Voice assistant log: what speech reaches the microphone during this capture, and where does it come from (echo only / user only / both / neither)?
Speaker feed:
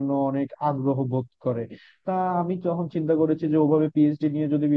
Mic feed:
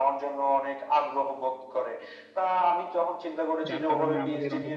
both